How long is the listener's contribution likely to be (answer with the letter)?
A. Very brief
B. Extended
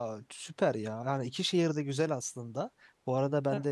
A